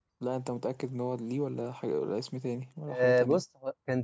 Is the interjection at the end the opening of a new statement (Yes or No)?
Yes